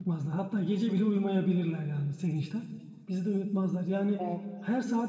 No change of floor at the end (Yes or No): Yes